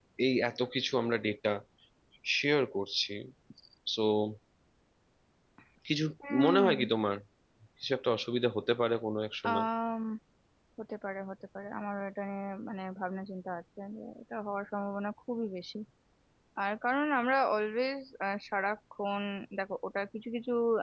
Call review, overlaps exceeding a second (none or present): none